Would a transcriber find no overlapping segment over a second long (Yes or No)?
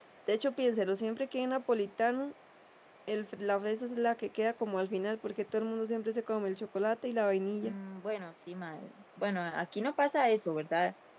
Yes